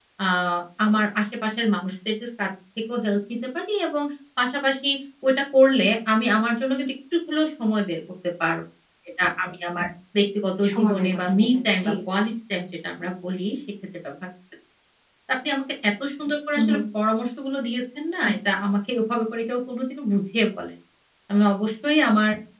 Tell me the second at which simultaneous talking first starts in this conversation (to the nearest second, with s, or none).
11 s